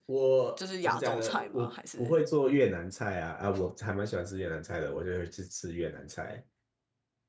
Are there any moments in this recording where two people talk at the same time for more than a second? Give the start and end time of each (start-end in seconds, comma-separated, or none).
0.6-2.1